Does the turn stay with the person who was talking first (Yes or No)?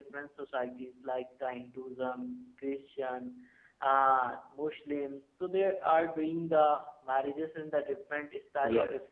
No